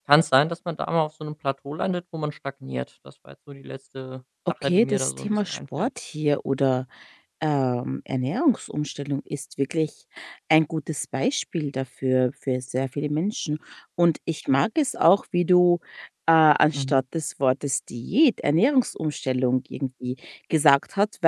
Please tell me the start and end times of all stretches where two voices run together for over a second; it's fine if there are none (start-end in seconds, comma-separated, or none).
4.6-5.9